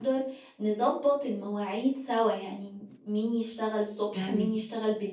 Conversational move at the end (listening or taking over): listening